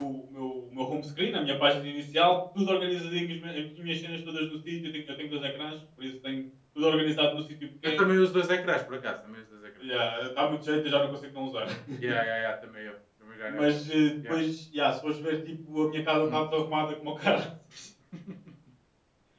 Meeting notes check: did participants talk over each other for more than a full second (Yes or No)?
No